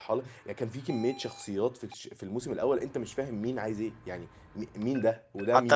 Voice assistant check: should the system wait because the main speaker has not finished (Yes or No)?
No